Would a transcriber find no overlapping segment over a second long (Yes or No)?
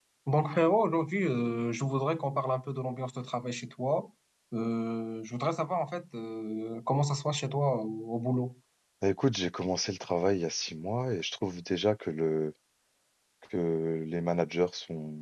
Yes